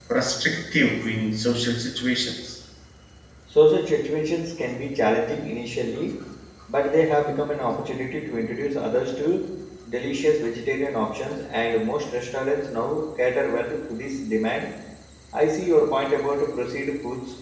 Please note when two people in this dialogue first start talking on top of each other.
none

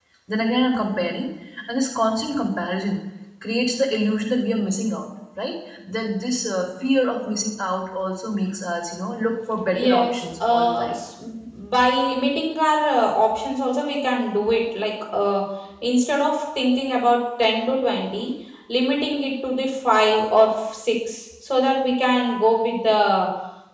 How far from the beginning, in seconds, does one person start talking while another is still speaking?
9.7 s

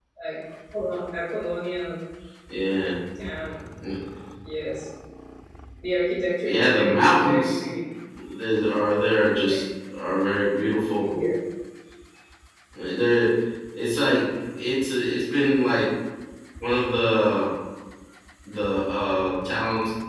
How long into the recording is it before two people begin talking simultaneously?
6.4 s

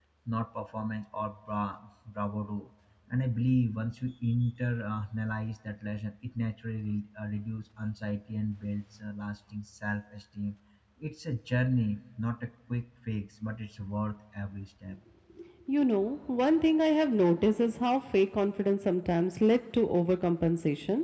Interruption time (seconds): none

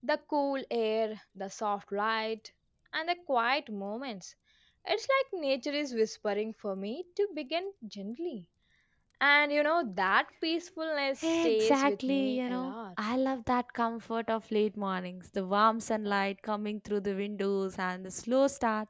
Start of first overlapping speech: 11.2 s

